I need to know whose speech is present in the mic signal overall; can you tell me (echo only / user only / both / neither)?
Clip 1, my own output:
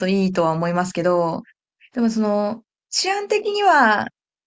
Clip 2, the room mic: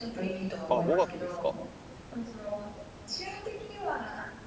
both